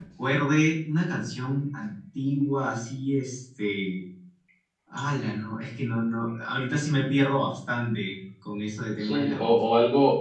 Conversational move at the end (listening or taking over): taking over